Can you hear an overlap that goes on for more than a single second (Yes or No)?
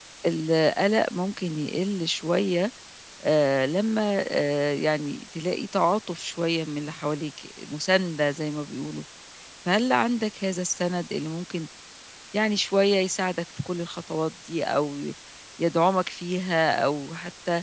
No